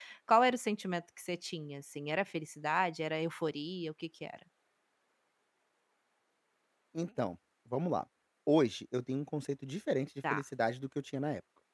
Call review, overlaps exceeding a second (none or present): none